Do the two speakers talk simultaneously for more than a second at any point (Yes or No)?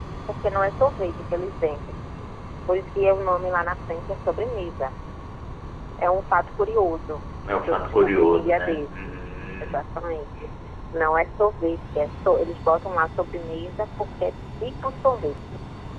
Yes